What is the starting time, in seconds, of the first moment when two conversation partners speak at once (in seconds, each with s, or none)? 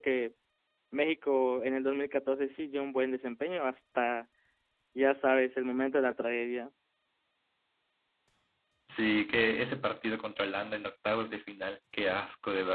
none